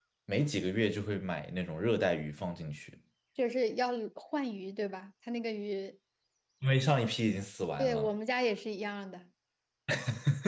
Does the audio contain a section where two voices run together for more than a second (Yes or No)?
No